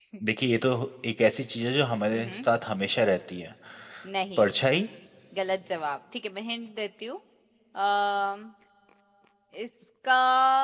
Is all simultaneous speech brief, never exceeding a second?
Yes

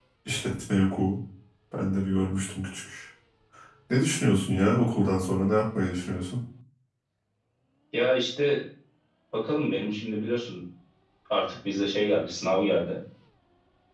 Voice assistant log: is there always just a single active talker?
Yes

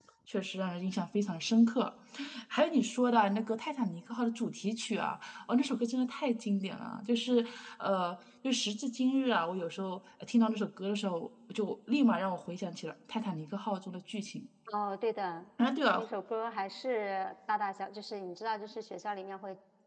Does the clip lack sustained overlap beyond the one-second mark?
Yes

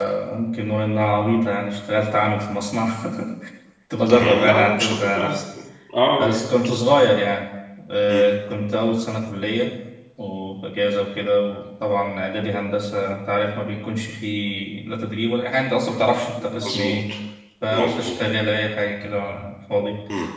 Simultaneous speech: Yes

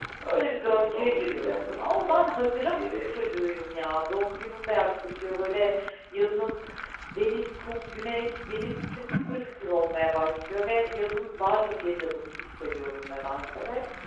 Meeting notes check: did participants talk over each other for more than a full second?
Yes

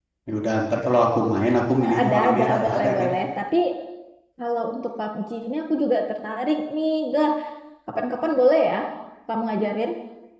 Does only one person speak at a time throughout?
No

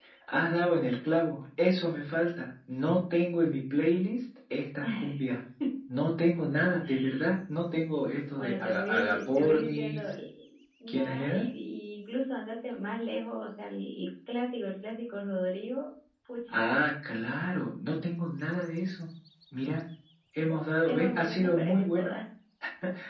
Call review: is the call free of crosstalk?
No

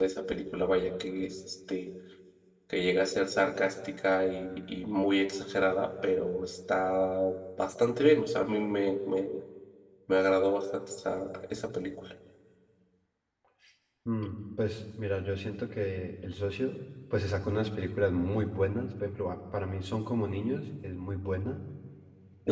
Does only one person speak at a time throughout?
Yes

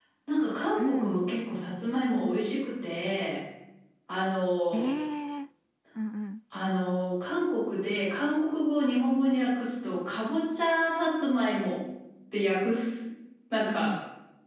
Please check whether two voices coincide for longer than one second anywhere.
No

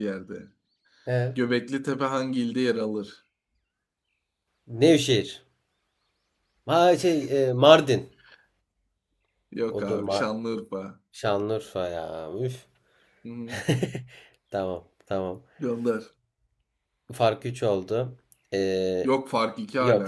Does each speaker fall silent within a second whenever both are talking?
Yes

